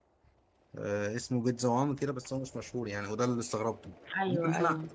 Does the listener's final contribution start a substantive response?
No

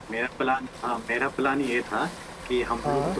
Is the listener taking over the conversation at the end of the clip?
No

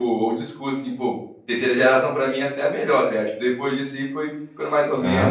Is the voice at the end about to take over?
Yes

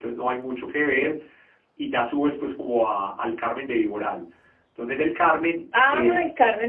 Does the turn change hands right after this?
Yes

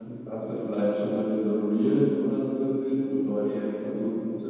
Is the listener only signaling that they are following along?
Yes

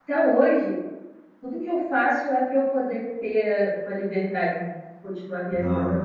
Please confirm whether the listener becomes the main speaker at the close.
Yes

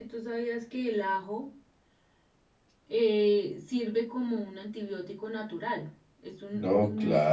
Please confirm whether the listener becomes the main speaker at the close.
Yes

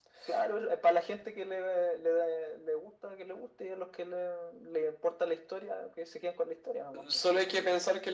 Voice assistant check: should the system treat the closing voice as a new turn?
Yes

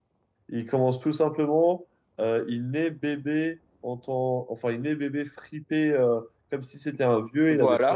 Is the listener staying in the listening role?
Yes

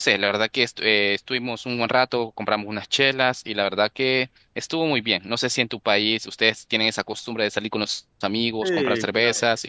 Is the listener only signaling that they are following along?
No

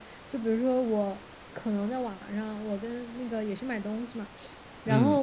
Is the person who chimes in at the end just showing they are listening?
Yes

